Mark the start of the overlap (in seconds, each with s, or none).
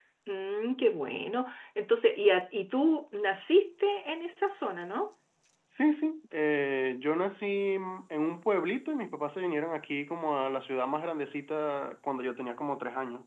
none